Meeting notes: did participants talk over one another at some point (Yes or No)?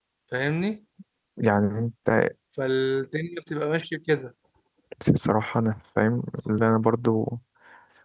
No